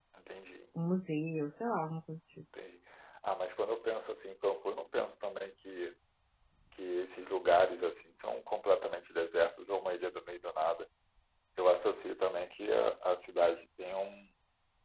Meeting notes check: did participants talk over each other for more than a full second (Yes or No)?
No